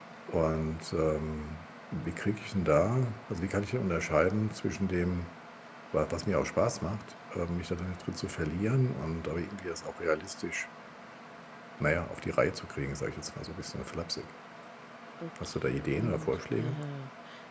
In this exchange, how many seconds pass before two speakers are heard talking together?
15 s

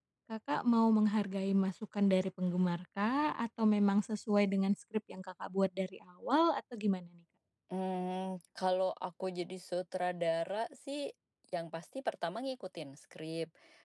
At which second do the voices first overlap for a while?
none

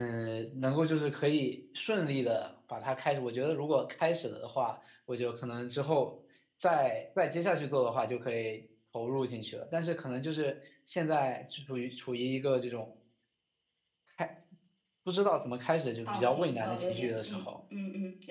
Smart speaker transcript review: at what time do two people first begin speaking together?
16 s

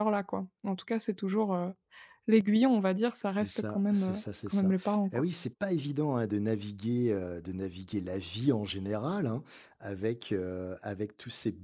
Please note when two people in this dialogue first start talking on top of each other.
3 s

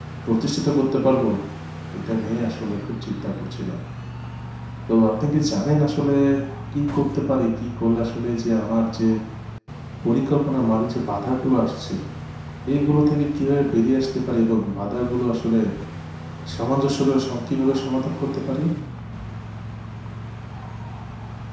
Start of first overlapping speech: none

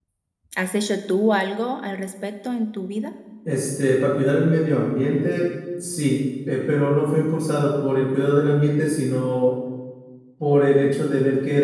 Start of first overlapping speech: none

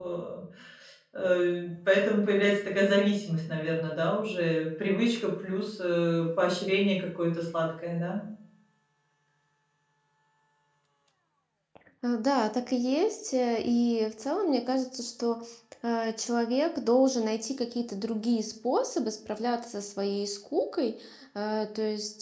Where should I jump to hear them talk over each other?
none

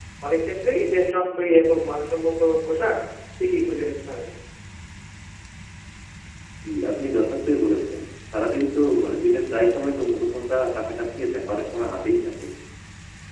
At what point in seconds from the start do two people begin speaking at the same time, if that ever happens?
none

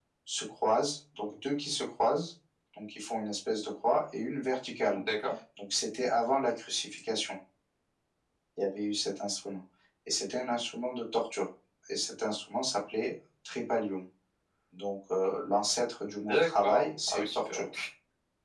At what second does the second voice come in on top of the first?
16 s

